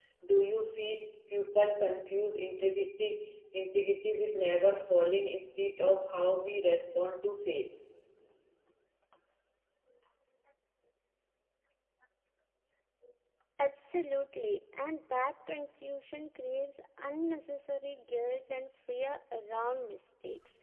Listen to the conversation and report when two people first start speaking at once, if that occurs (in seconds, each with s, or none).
none